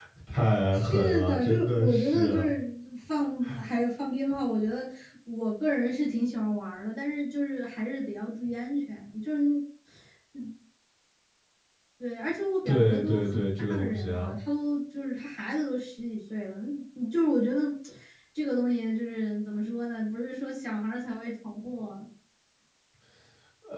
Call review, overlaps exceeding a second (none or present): present